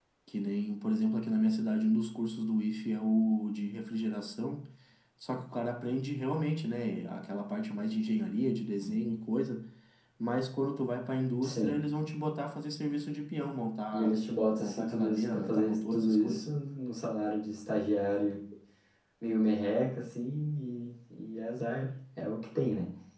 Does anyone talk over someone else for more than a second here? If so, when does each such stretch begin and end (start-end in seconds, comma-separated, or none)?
14.6-16.5